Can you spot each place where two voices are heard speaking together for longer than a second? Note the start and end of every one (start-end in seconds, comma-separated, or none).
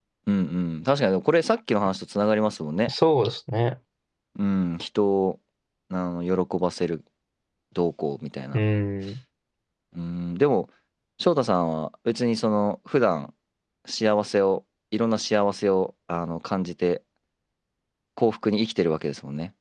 none